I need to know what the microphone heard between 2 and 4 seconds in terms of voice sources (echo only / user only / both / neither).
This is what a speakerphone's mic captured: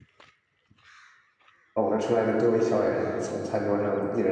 user only